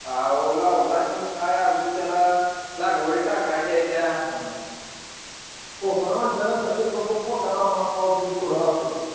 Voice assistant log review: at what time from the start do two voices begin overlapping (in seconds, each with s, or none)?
none